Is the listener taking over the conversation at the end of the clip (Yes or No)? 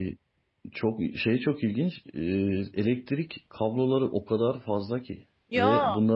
No